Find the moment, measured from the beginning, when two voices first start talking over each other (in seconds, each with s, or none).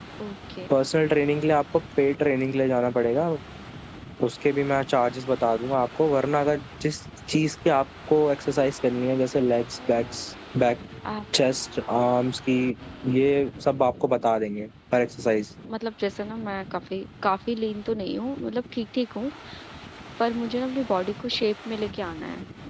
none